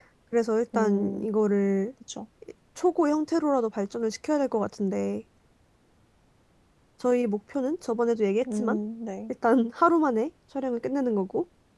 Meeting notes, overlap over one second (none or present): none